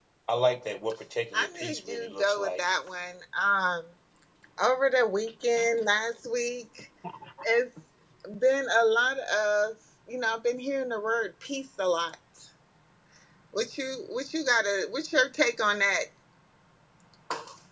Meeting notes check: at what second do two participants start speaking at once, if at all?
1.3 s

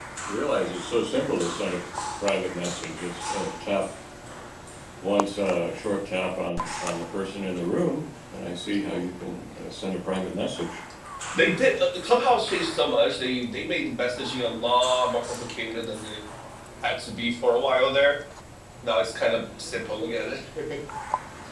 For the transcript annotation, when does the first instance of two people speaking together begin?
none

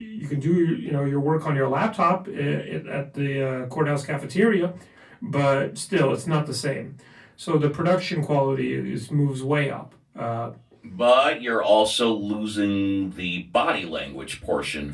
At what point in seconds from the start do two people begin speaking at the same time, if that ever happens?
none

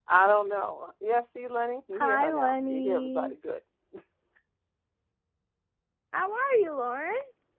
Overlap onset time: 2.0 s

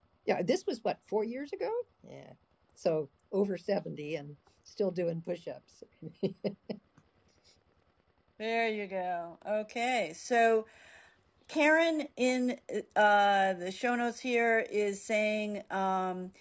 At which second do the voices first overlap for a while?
none

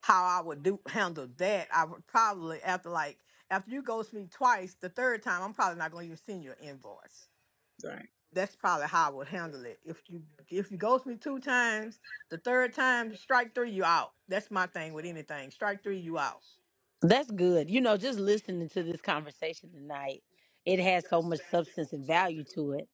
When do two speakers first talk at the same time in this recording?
none

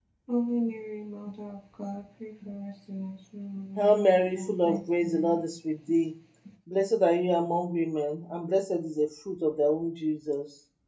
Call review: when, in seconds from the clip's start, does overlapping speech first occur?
3.8 s

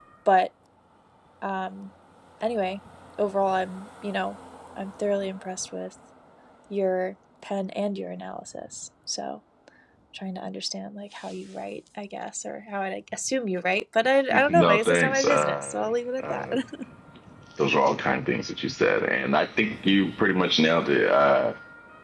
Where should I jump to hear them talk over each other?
14.5 s

